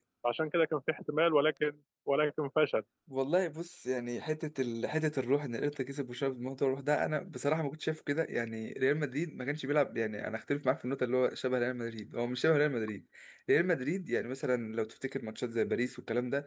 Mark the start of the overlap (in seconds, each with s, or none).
none